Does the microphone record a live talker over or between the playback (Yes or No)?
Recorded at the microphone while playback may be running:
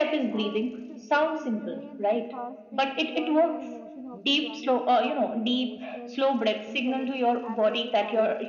Yes